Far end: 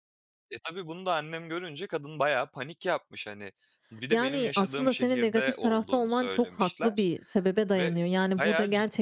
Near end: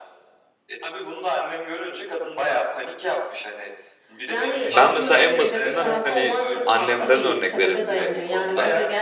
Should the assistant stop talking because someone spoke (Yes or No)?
Yes